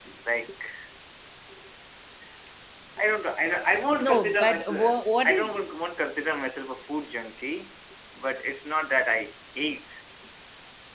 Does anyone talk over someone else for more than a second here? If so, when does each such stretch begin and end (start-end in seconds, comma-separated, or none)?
4.0-5.7